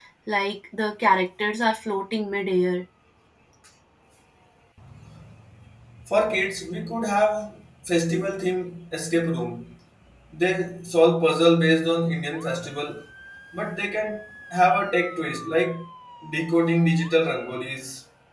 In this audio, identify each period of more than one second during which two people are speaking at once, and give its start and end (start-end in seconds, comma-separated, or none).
none